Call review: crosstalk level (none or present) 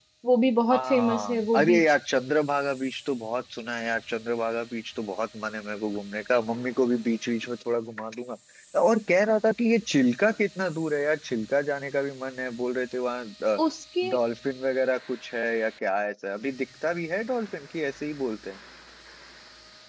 present